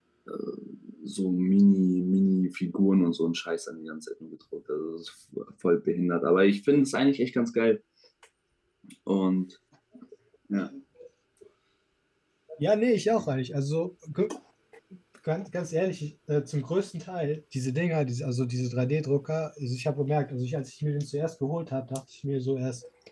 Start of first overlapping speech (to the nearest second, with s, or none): none